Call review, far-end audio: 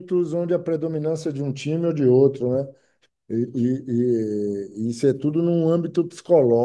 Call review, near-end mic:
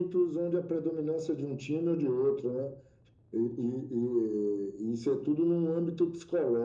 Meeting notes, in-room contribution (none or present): none